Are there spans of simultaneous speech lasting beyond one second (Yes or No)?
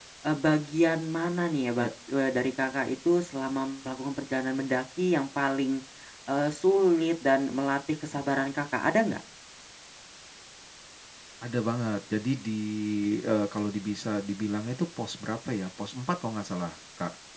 No